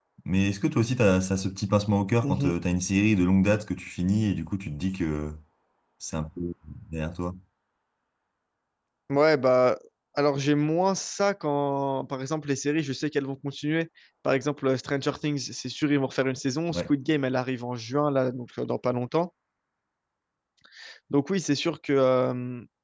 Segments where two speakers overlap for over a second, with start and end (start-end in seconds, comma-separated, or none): none